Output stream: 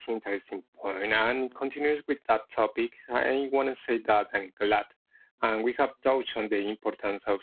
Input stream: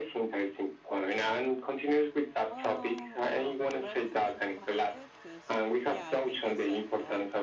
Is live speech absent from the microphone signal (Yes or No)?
No